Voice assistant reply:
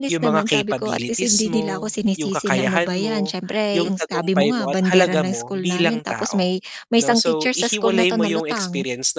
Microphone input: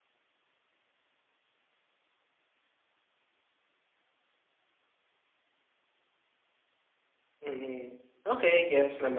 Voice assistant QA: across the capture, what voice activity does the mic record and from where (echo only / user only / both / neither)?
user only